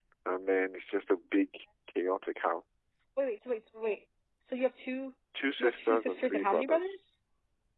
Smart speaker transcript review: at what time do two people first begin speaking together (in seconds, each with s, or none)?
5.6 s